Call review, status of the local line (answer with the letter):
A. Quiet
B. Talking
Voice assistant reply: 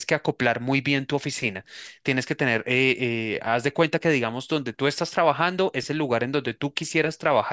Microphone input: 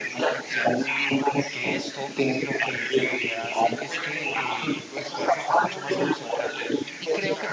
B